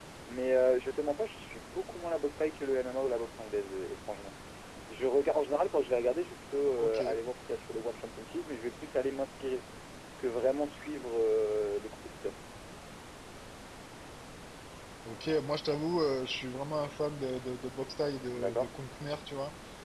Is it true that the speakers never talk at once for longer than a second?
Yes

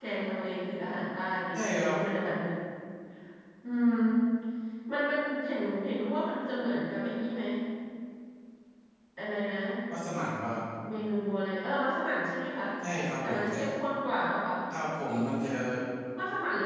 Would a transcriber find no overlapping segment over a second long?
Yes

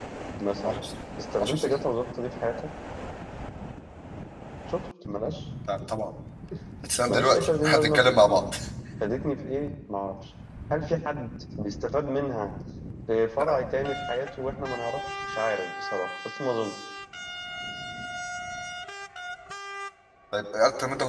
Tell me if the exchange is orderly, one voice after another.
No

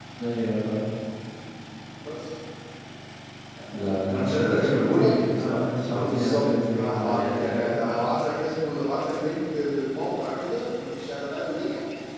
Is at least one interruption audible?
Yes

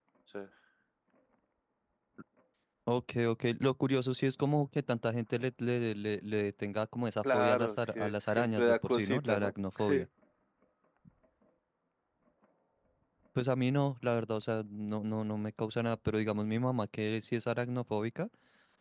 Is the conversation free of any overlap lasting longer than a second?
No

